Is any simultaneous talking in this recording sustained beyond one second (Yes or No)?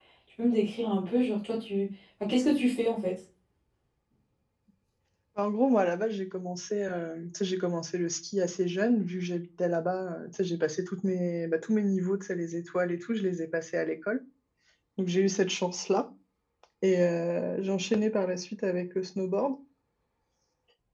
No